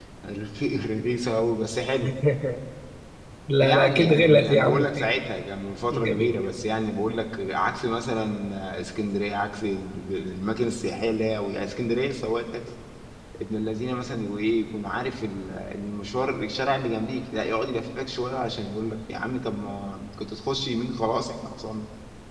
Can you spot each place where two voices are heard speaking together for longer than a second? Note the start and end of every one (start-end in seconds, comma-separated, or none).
3.6-5.1